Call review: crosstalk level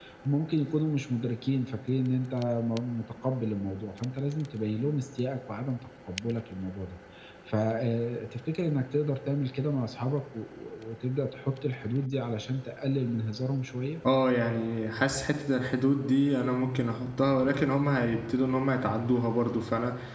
none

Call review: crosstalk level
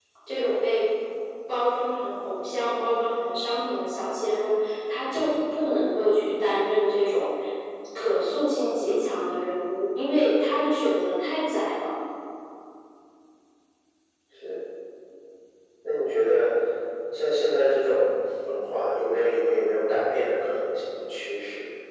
none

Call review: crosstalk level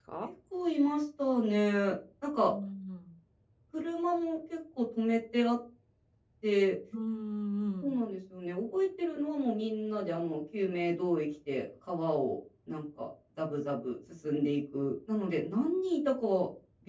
none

